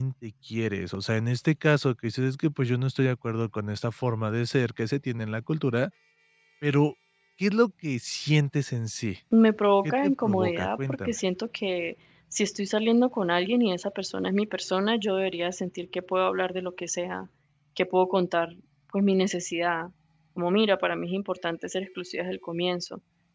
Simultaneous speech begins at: 9.8 s

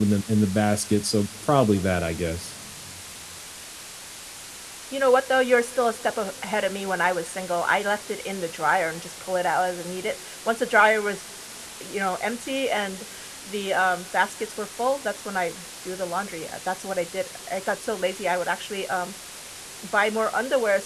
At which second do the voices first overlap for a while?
none

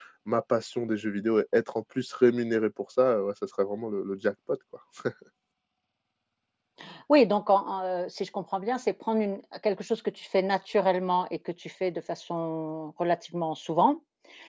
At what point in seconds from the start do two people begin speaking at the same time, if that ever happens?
none

